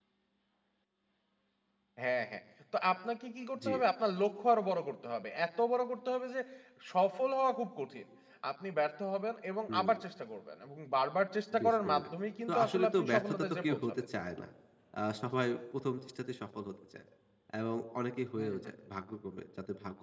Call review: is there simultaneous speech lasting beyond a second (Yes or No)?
Yes